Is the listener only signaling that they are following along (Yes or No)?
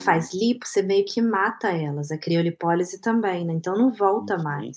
No